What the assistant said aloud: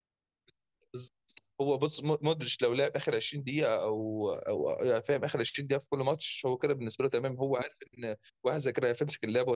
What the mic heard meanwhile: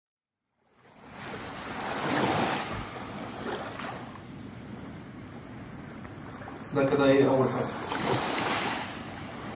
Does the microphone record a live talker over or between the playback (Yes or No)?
Yes